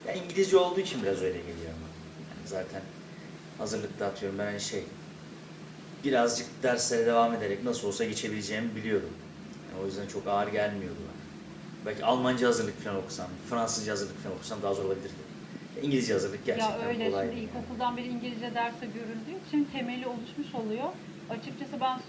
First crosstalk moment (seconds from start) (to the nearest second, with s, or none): 17 s